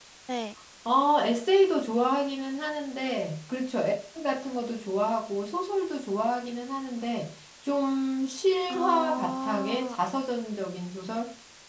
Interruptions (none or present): present